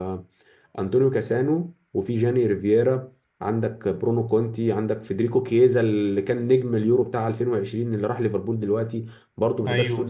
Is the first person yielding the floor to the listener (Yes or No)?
No